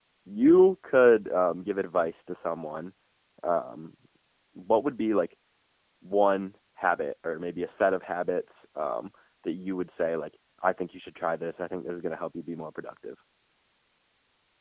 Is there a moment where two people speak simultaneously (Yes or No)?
No